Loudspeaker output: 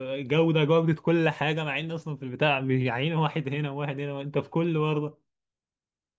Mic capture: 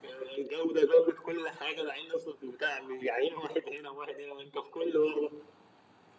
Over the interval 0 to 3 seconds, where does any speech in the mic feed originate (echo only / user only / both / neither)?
echo only